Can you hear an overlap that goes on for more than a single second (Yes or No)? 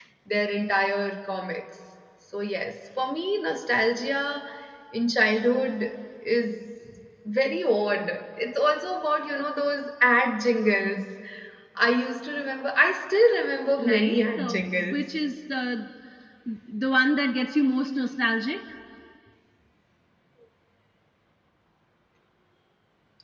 Yes